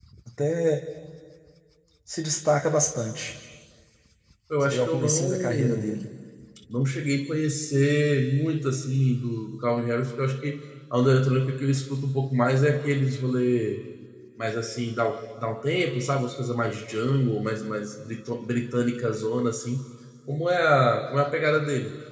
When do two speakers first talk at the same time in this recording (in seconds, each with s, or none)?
4.6 s